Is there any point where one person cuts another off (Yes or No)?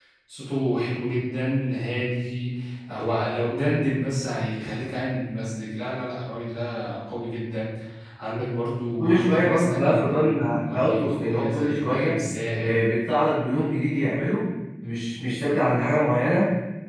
Yes